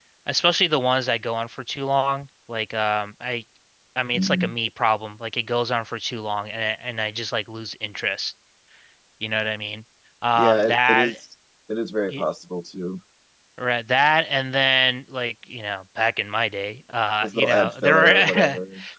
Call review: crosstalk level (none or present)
present